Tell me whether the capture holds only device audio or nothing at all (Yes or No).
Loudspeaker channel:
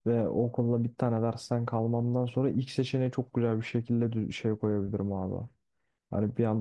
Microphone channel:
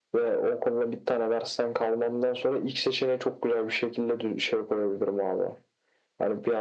Yes